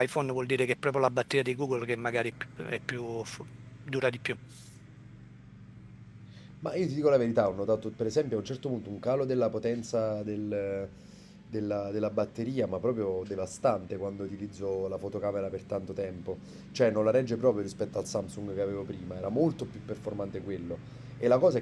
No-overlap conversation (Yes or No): Yes